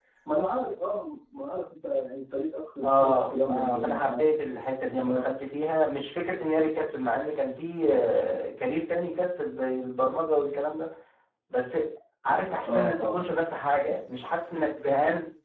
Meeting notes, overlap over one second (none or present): present